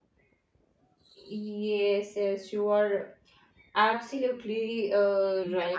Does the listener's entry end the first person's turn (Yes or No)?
Yes